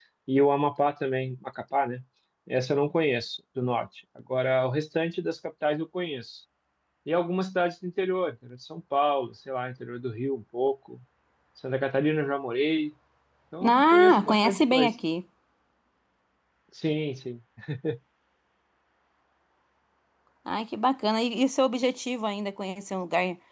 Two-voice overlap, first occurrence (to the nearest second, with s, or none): 14 s